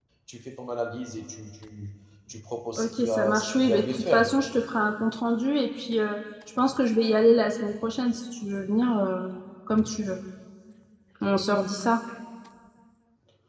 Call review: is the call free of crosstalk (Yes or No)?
No